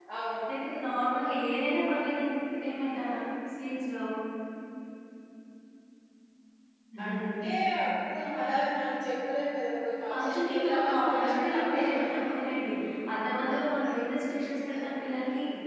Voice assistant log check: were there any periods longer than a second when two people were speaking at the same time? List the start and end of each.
10.1-12.3

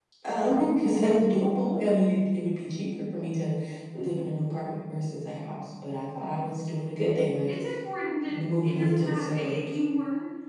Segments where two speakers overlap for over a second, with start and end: 8.3-9.8

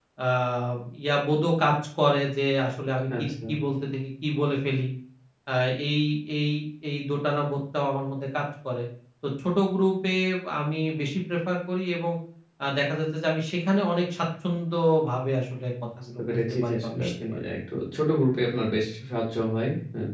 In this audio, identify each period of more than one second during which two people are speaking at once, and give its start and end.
16.2-17.4

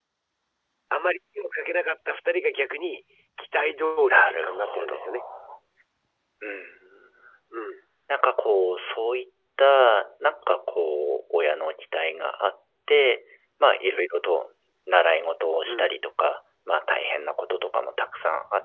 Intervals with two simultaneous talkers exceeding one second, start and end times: 4.0-5.2

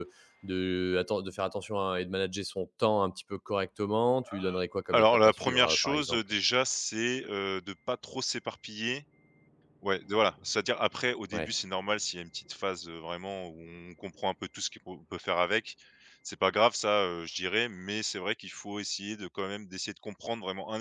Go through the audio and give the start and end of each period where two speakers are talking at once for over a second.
4.9-6.2

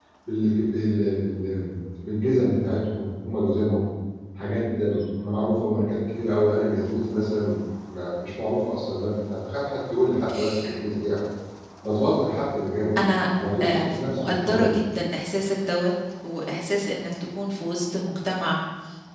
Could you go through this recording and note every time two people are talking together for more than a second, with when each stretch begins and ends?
13.6-14.8

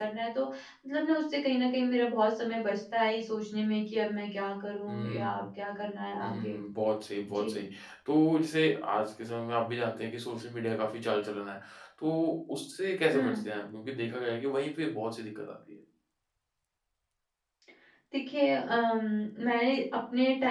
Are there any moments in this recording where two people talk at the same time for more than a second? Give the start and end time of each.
none

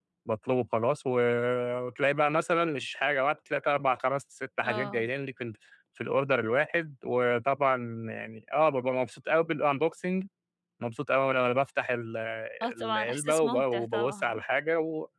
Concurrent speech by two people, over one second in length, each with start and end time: 12.8-14.4

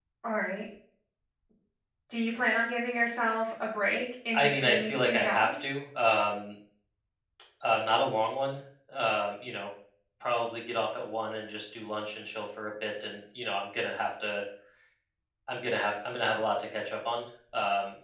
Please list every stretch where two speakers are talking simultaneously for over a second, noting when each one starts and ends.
4.3-5.7

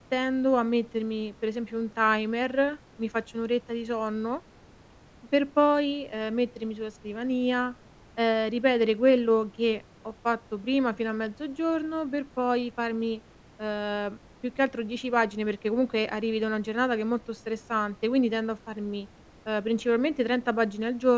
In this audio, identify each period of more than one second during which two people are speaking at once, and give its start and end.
none

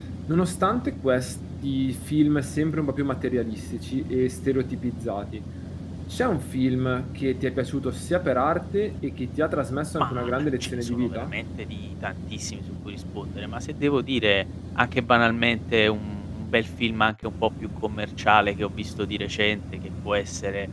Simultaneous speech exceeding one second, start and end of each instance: 10.0-11.3

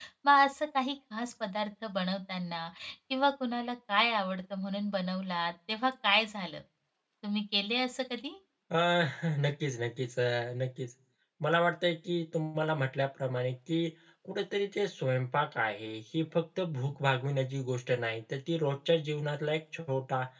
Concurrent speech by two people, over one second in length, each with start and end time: none

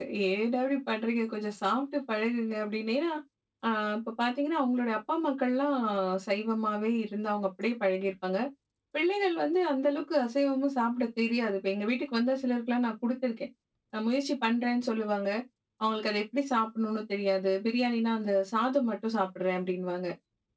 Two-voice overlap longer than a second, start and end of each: none

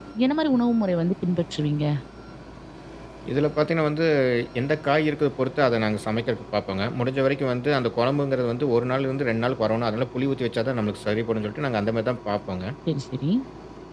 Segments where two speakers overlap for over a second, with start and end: none

